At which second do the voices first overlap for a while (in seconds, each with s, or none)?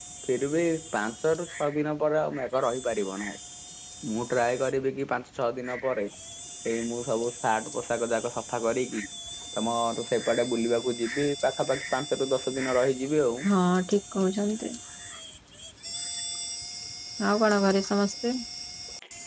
none